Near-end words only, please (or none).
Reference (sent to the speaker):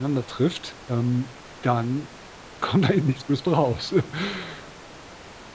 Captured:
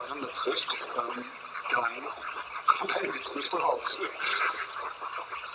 none